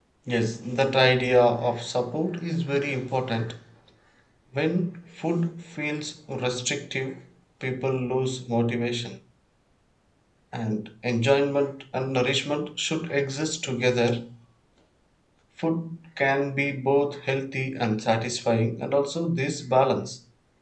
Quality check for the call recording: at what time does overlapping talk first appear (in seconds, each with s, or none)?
none